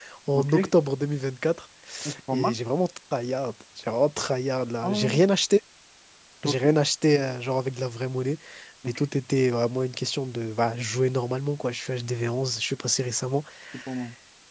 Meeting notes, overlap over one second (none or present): none